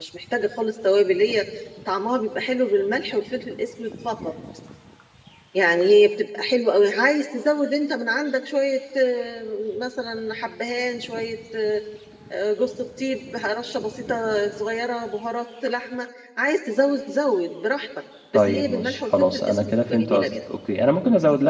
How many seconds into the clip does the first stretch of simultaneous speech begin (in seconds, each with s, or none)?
18.3 s